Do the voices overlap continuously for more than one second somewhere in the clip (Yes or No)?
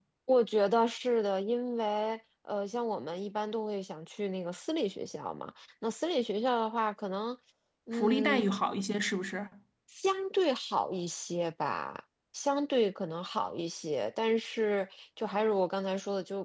No